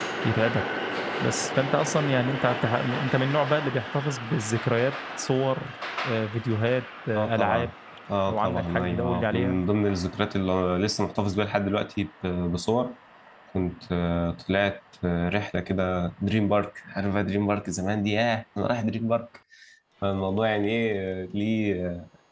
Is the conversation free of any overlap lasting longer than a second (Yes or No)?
No